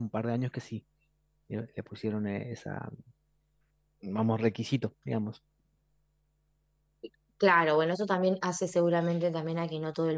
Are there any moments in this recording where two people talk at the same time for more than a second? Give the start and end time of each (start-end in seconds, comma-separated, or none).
none